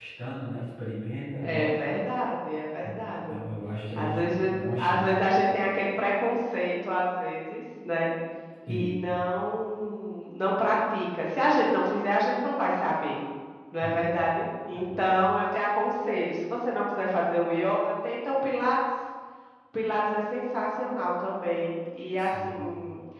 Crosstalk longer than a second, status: present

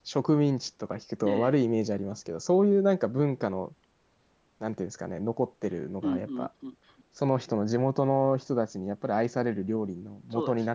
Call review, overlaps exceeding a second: none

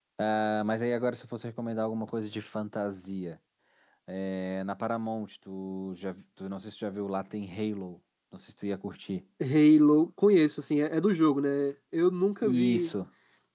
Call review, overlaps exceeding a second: none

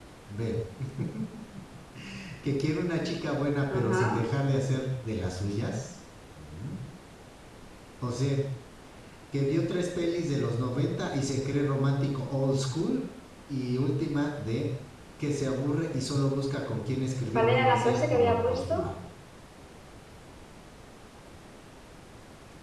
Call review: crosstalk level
present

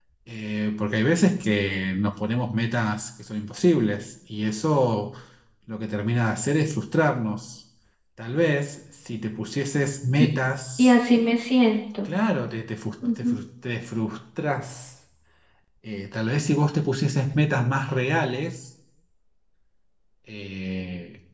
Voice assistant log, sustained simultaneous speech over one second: none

